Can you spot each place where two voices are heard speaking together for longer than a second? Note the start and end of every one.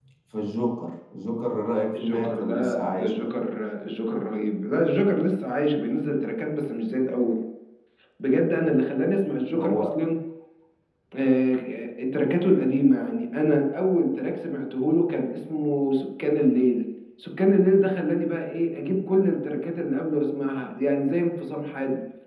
2.0-3.3

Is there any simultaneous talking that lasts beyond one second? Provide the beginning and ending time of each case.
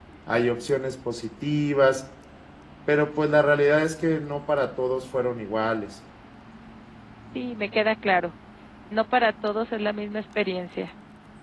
none

